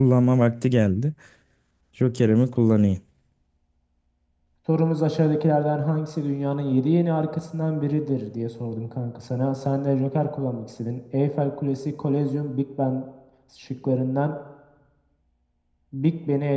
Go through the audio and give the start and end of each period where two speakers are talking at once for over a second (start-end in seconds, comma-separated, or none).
none